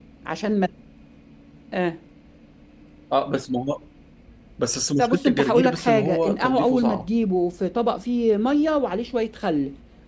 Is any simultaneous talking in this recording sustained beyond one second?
Yes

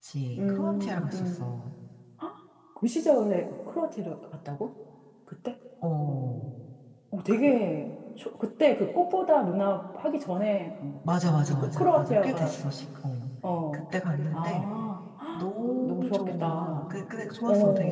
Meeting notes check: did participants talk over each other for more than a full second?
Yes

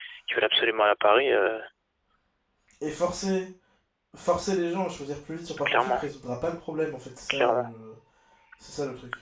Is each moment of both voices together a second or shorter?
Yes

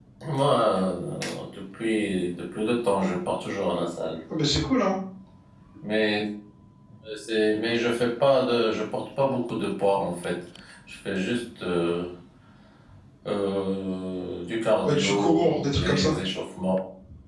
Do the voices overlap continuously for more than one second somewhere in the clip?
Yes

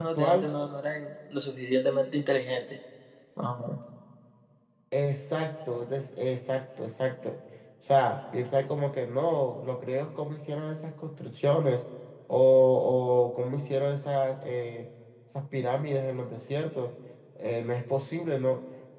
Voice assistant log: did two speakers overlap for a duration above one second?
No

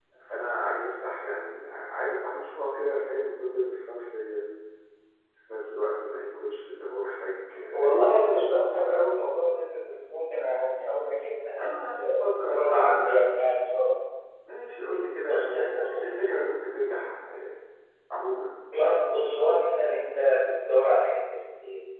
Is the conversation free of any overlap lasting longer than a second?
No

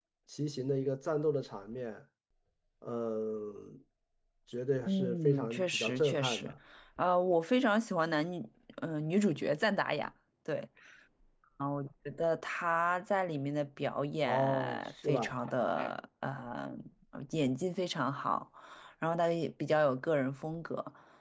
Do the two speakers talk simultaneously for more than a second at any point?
Yes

